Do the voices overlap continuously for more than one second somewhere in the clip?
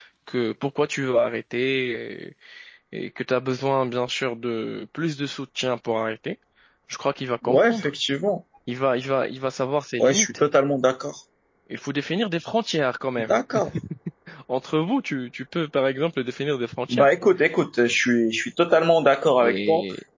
No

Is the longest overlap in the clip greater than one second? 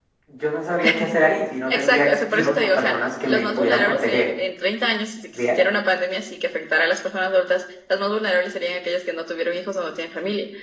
Yes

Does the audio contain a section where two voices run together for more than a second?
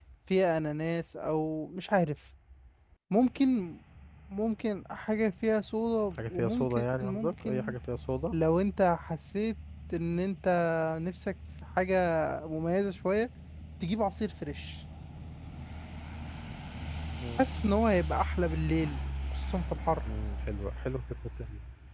Yes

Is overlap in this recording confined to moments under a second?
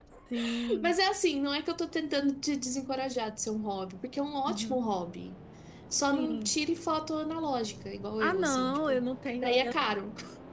No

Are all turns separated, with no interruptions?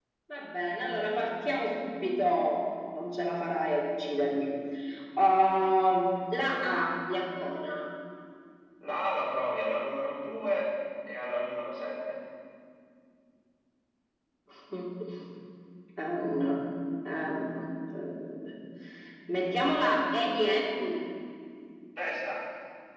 Yes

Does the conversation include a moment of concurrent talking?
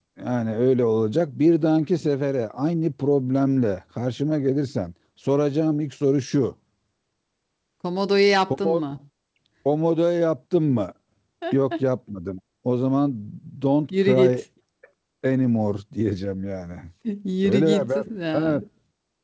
Yes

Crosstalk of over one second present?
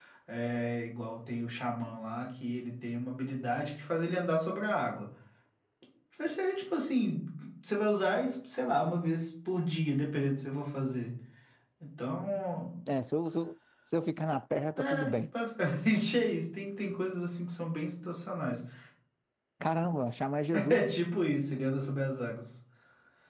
No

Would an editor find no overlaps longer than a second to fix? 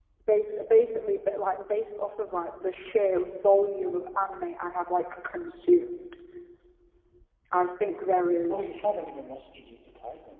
Yes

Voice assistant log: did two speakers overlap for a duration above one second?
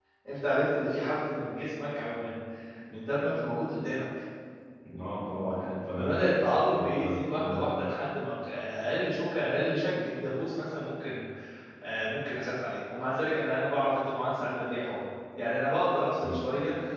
Yes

